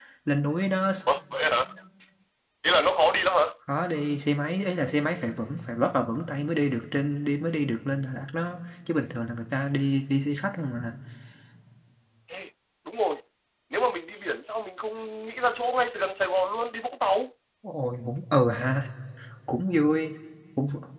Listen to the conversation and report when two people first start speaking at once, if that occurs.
none

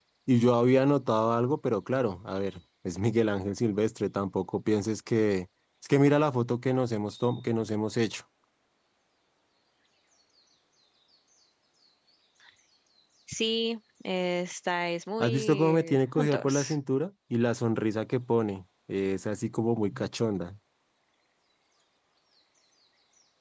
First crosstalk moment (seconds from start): 15.2 s

